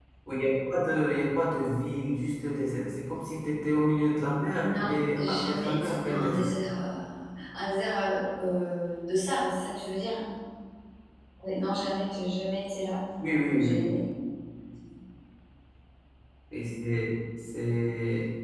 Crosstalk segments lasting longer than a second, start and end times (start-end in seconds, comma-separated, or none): 4.6-6.5